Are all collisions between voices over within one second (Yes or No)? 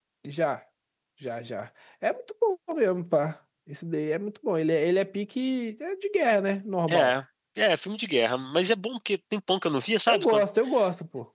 Yes